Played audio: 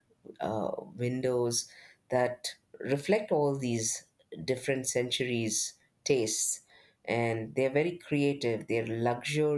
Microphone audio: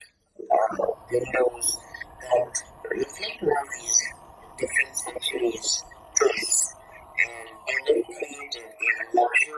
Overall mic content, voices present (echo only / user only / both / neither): echo only